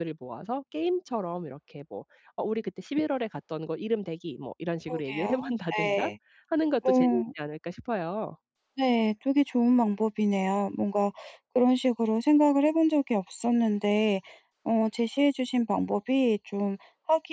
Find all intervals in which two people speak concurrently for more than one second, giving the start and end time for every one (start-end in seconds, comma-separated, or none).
4.9-6.1